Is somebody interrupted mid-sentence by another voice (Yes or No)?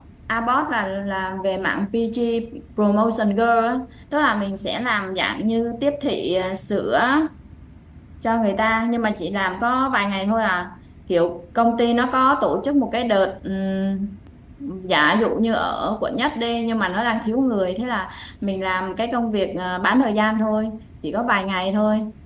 No